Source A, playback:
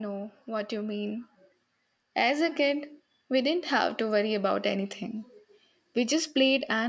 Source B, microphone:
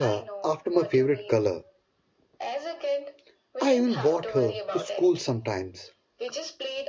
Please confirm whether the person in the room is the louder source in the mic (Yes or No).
Yes